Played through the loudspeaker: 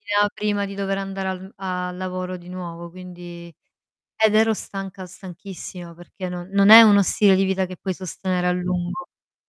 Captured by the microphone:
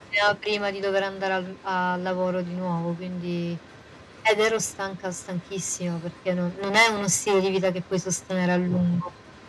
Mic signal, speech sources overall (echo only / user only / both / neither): echo only